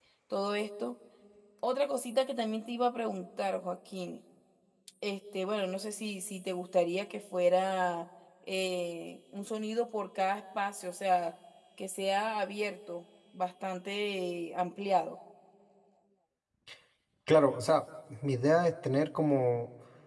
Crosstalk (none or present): none